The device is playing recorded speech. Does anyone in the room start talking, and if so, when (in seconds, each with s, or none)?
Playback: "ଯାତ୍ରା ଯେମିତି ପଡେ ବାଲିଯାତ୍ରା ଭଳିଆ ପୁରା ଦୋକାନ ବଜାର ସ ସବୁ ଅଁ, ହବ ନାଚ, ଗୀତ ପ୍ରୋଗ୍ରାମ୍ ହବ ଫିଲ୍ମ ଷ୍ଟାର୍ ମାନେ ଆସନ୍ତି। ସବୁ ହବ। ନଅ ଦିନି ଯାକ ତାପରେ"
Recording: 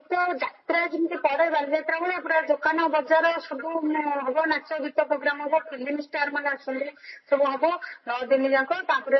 none